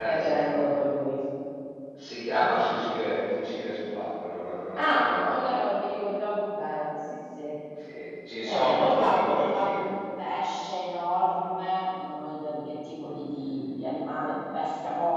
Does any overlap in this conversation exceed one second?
Yes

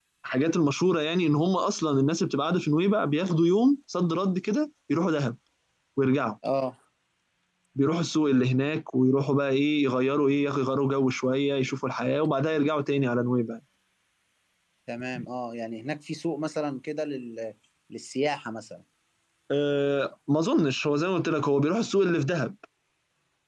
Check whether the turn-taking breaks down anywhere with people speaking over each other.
No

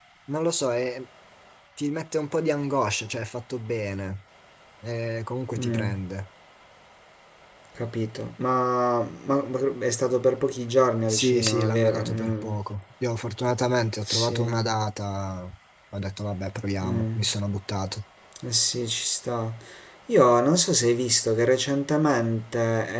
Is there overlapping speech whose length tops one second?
Yes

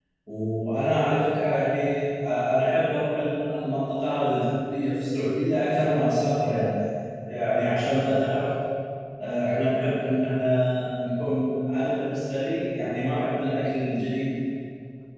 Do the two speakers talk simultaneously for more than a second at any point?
No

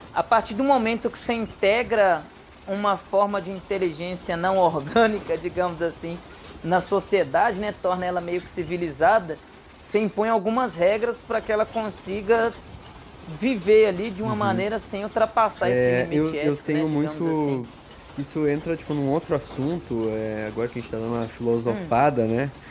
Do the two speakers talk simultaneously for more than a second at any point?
Yes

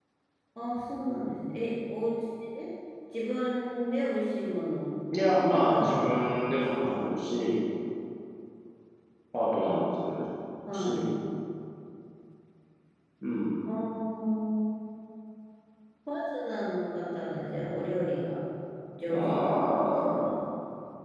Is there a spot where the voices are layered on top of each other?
Yes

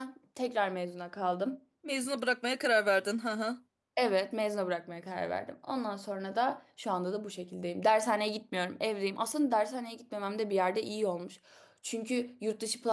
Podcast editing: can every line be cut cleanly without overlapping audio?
Yes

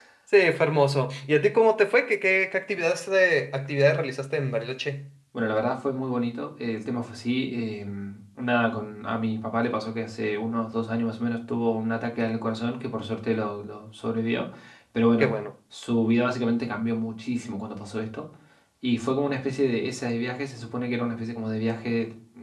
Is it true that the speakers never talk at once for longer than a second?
Yes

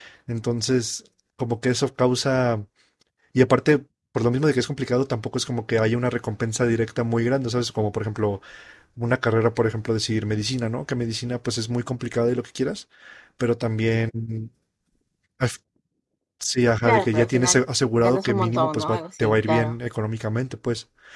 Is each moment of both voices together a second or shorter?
No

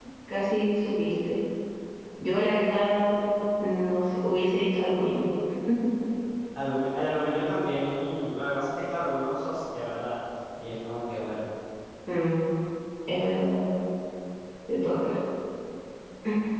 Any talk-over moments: No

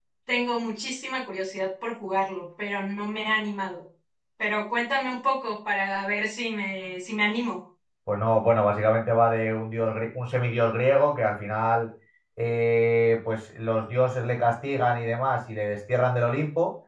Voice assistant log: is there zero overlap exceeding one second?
Yes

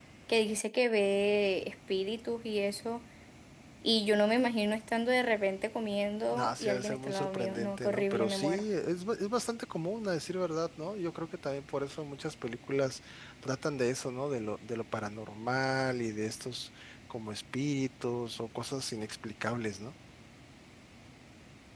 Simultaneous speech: Yes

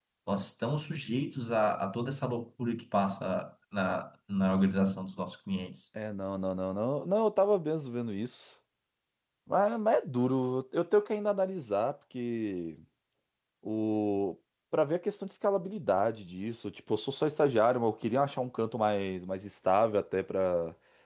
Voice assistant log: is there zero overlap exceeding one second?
Yes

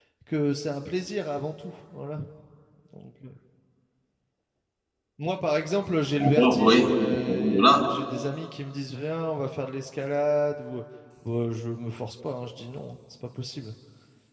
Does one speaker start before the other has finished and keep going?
Yes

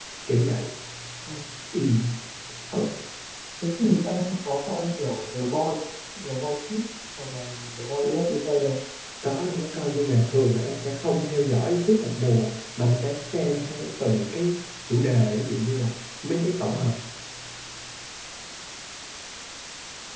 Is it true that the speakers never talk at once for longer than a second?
Yes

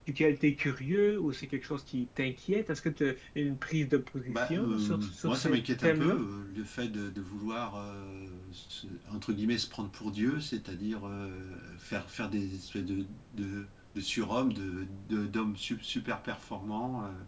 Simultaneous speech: Yes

